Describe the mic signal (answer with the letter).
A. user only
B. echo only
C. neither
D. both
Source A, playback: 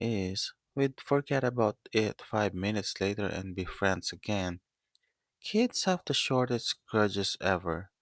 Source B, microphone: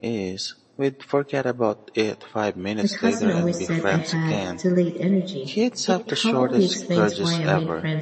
D